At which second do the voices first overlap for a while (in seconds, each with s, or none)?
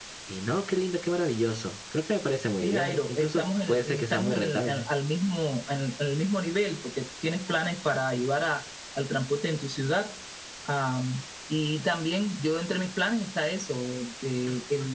2.6 s